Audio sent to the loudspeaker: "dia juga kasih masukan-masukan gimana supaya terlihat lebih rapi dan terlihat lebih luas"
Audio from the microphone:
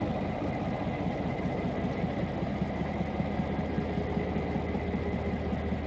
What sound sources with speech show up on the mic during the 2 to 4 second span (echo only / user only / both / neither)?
neither